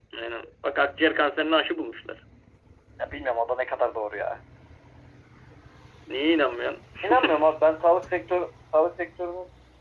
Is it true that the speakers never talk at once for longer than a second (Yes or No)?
Yes